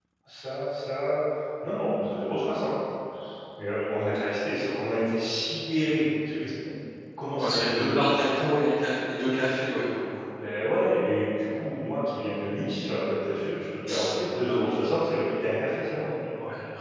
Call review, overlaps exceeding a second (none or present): present